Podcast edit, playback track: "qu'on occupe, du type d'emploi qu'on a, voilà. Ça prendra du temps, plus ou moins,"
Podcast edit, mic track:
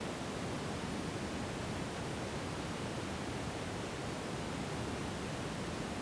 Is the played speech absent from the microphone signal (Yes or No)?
Yes